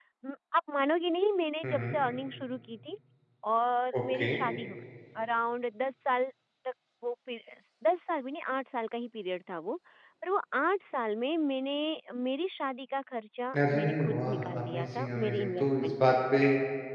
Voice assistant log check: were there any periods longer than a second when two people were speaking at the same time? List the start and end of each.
13.7-16.2

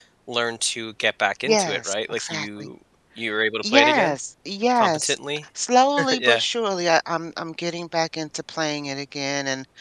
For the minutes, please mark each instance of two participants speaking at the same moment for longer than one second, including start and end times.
1.5-2.7

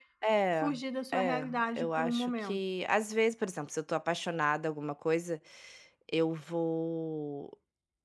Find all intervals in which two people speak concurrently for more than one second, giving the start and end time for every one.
1.1-2.6

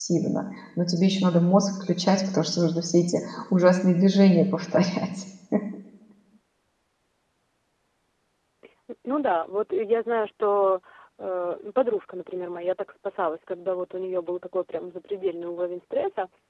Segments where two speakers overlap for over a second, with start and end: none

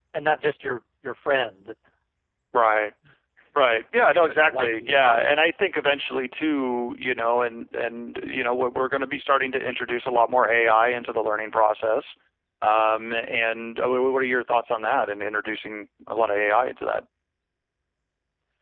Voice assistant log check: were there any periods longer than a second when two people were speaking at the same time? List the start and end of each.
4.1-5.5

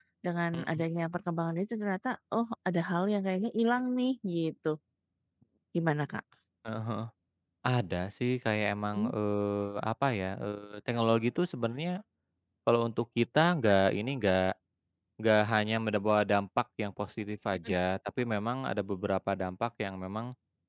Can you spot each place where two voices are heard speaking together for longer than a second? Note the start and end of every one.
none

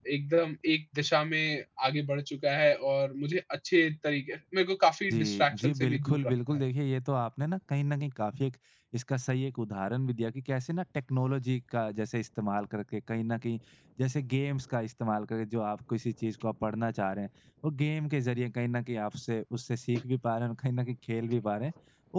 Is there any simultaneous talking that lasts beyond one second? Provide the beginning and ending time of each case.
5.1-6.6

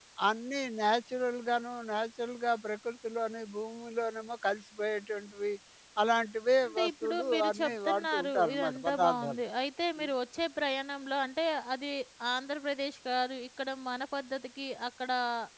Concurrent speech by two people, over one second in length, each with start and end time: 6.7-9.4

